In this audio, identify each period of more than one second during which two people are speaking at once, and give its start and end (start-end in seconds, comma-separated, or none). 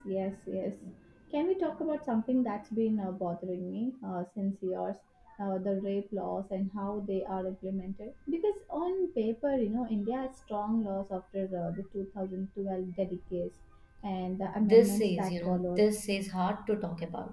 14.6-15.8